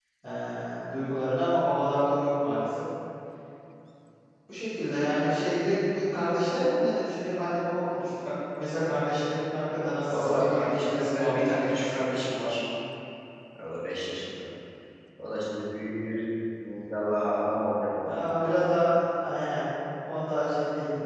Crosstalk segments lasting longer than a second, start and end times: 10.1-12.0

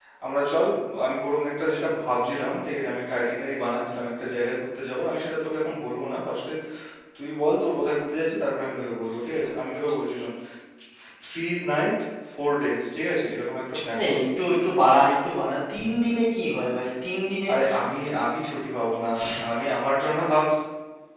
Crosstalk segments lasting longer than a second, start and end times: none

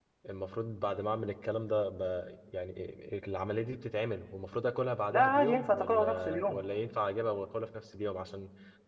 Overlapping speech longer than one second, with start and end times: 5.1-6.6

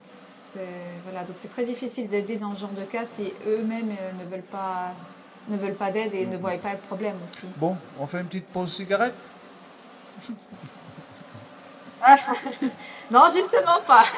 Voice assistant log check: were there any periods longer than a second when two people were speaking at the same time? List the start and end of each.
none

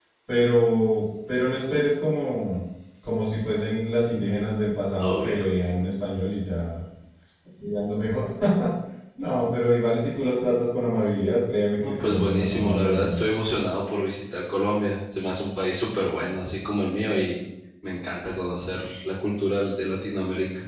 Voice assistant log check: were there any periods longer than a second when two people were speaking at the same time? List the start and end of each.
11.8-13.3

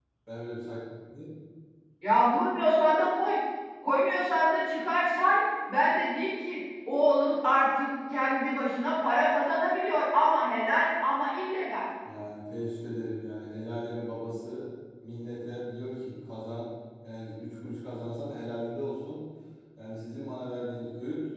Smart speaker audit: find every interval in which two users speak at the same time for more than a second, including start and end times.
none

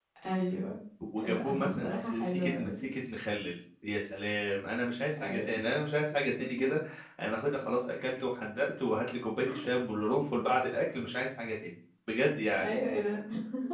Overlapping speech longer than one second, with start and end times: 1.2-2.8

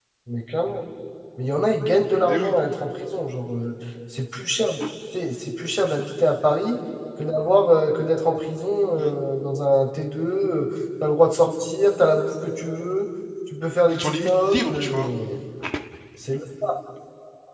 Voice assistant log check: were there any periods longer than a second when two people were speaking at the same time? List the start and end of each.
13.9-15.1

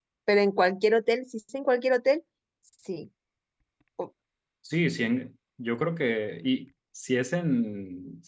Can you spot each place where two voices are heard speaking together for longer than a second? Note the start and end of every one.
none

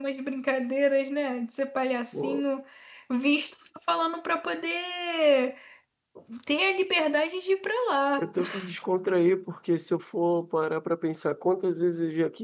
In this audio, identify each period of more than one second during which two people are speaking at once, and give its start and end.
none

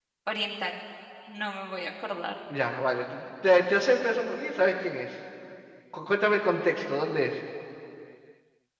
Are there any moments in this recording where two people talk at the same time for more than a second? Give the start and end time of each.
none

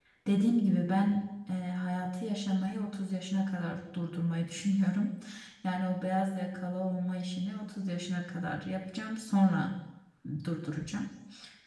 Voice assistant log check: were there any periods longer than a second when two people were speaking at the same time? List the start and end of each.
none

